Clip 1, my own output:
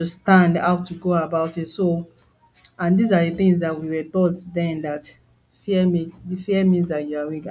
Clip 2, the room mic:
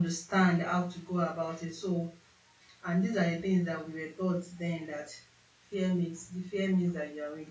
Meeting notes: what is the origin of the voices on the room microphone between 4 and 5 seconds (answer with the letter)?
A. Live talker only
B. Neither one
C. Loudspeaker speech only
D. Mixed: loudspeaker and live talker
C